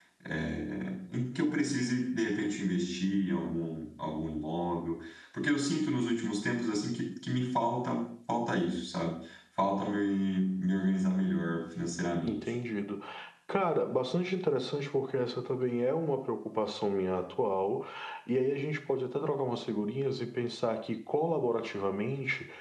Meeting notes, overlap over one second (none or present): none